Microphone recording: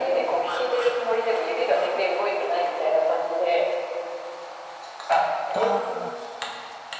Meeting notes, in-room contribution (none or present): present